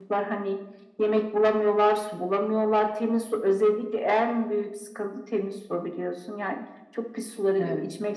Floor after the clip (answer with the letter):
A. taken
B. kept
B